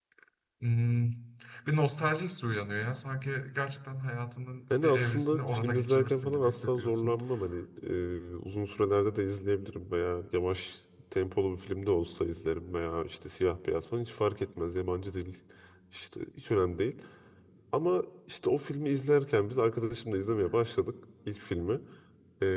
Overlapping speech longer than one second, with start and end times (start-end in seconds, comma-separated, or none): 4.8-7.2